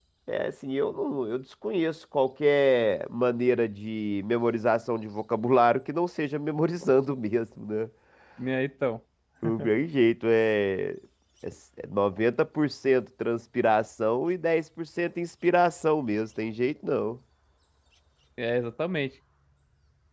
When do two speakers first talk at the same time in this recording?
none

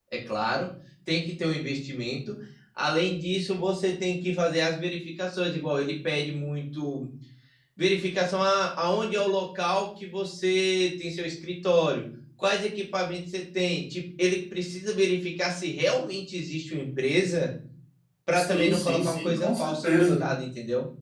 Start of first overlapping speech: 18 s

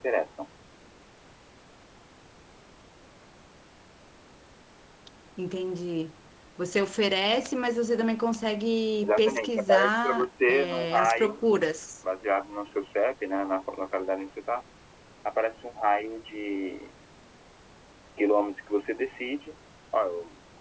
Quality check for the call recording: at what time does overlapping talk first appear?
9 s

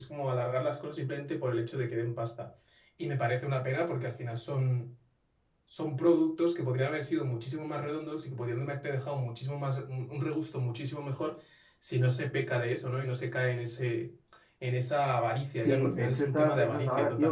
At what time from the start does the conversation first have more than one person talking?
16 s

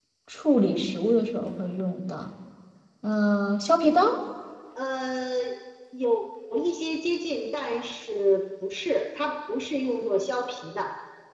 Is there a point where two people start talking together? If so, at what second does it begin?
none

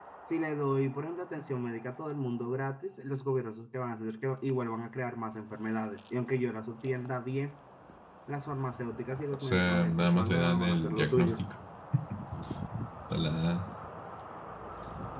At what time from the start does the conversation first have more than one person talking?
9 s

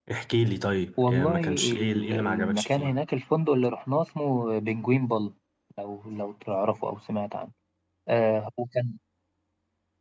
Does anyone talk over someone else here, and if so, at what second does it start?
1 s

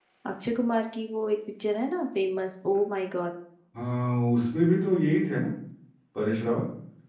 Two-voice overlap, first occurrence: none

